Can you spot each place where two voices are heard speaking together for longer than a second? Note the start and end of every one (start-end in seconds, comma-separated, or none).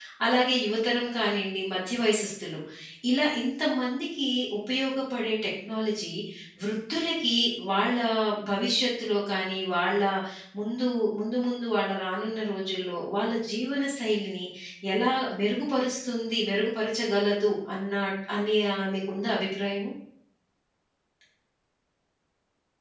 none